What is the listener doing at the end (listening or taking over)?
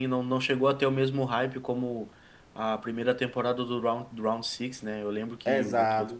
taking over